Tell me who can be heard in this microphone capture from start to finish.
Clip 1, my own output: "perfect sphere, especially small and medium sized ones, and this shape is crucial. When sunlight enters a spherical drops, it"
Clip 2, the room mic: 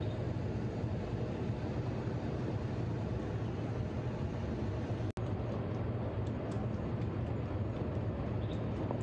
neither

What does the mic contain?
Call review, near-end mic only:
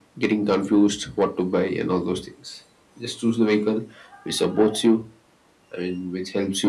echo only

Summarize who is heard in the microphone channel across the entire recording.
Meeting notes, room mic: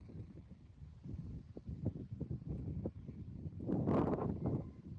neither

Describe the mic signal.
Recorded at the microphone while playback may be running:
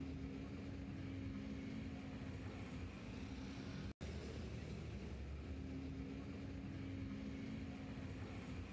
neither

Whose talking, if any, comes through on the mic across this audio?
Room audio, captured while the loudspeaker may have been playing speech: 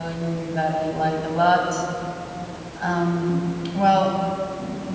user only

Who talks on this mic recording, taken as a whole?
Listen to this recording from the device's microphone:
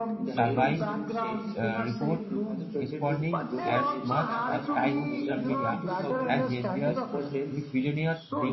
both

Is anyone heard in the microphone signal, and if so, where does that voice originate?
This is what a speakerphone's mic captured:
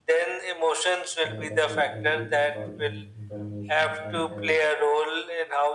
both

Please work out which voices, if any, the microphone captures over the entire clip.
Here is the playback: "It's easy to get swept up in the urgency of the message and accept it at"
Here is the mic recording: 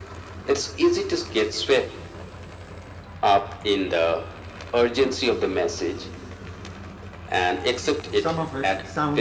both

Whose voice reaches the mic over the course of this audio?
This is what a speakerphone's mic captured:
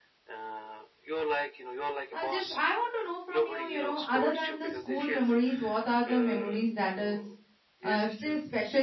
both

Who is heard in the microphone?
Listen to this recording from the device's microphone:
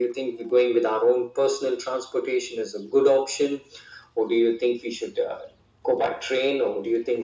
echo only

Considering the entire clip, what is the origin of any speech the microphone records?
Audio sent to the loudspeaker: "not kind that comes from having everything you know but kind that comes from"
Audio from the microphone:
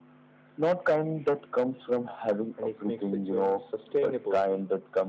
both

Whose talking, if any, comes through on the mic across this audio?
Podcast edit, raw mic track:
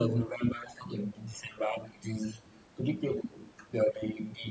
echo only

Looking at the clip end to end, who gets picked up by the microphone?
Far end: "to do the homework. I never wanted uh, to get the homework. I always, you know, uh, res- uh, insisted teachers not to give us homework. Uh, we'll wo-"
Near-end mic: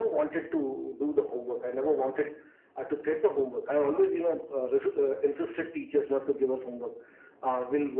echo only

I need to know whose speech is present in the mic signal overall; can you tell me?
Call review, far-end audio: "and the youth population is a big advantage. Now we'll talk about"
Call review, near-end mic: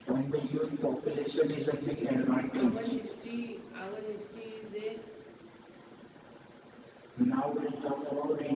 both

